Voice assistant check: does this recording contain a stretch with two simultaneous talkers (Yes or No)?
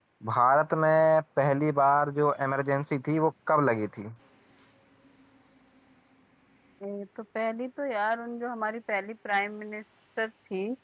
No